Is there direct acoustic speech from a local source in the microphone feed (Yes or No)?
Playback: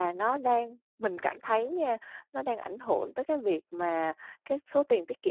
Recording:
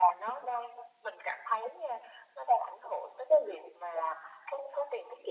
No